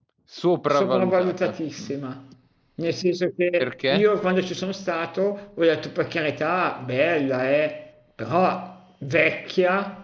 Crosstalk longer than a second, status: present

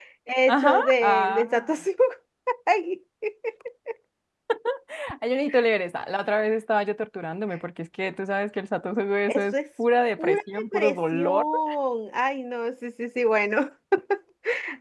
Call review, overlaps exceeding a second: present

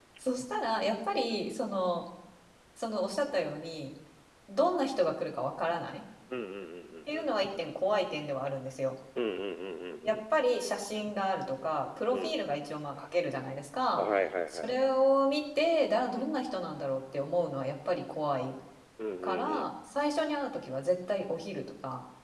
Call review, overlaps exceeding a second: none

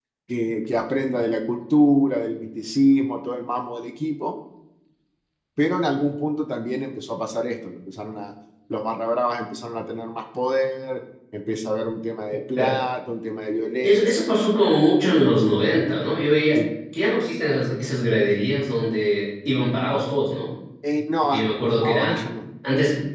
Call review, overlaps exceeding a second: none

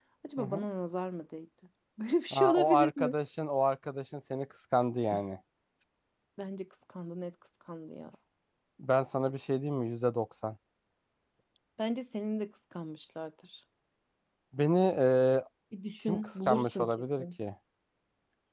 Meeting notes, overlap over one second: present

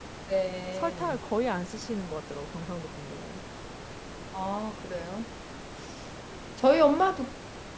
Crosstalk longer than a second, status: none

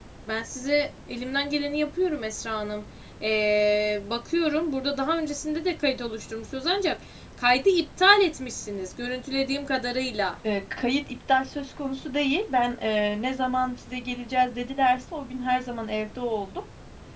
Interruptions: none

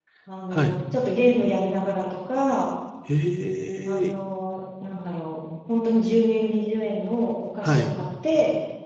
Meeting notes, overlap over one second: none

